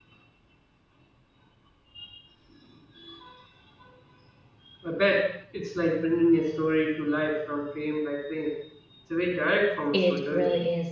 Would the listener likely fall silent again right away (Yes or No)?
No